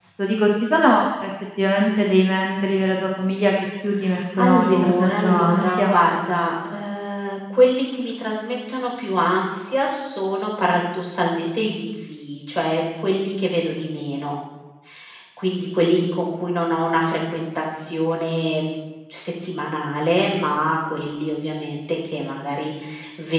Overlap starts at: 4.4 s

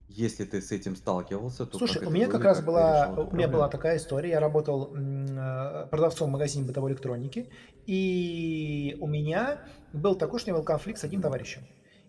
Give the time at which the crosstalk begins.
1.7 s

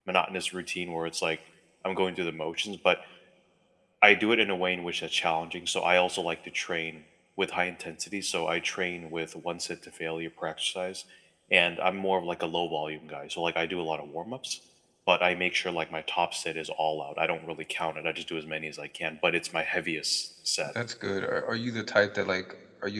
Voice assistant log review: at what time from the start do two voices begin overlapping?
none

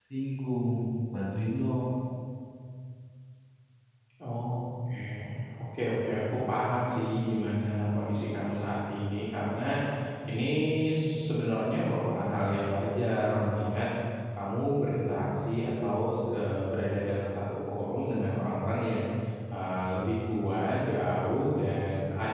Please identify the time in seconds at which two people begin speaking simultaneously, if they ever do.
none

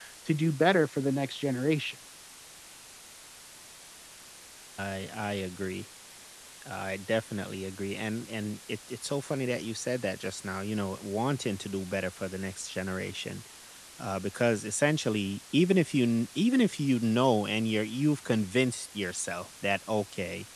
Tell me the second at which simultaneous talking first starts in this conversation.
none

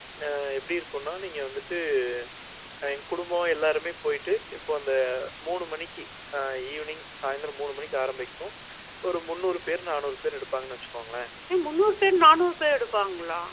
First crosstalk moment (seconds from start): none

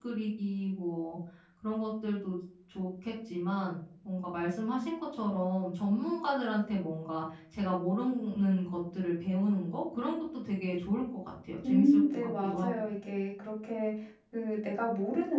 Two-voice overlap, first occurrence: 11.6 s

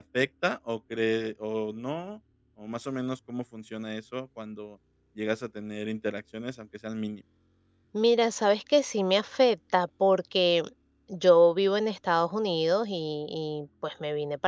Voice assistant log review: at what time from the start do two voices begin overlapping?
none

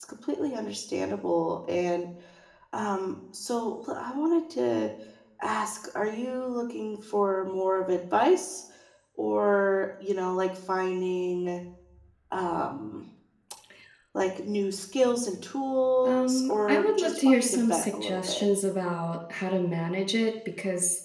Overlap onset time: 16.0 s

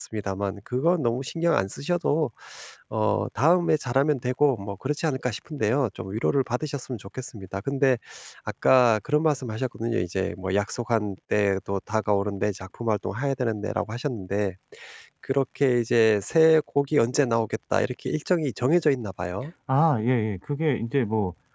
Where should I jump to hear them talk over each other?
none

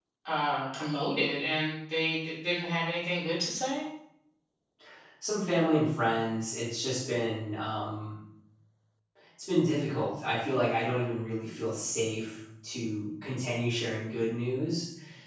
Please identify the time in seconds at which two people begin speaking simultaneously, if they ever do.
none

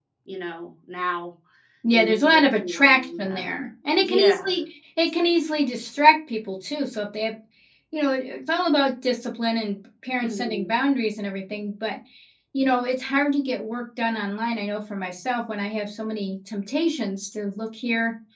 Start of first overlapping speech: 1.9 s

